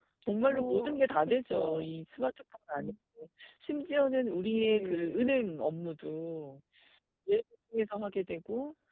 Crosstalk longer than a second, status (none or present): present